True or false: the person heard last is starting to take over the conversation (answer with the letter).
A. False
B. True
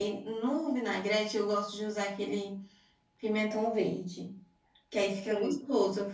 A